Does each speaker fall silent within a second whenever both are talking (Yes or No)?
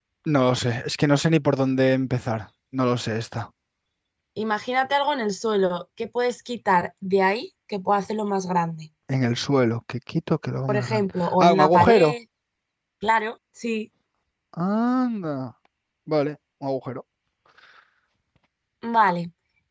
No